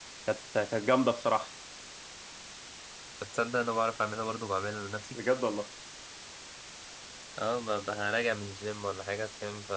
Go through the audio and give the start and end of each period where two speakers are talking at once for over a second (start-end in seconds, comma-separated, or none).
none